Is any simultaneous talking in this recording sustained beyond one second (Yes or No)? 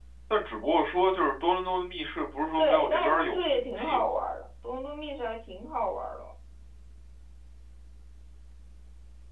Yes